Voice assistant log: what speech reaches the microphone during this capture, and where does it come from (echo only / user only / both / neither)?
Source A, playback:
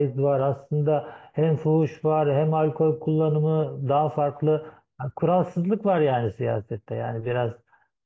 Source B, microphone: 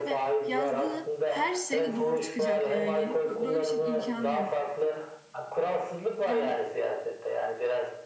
both